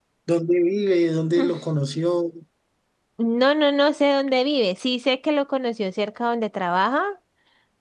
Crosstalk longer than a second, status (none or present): none